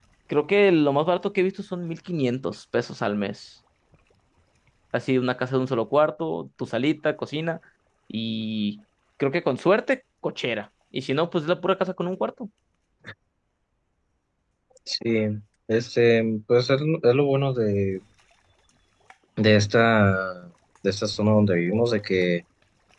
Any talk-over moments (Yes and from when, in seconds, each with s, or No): No